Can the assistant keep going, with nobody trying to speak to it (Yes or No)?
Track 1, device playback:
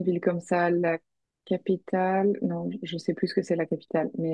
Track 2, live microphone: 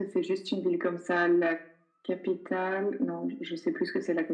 Yes